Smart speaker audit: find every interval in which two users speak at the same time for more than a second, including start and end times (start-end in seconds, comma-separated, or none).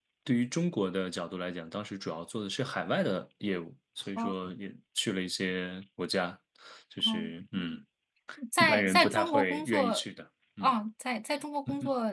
8.6-10.0